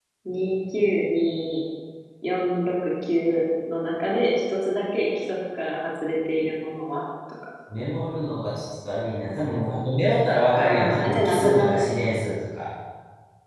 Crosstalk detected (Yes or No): Yes